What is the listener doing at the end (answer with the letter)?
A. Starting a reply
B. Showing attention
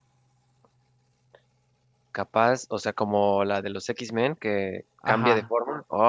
A